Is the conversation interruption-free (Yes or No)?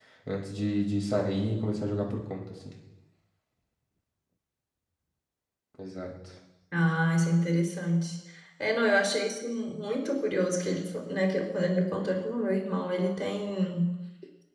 Yes